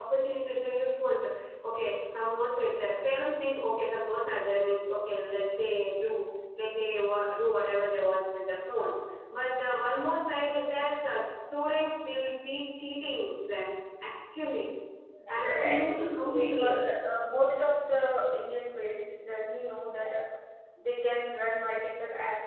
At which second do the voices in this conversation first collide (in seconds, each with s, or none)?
15.3 s